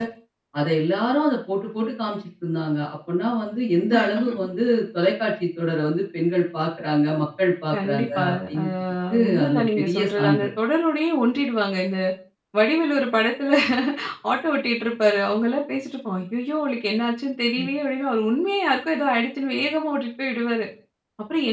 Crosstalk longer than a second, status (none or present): present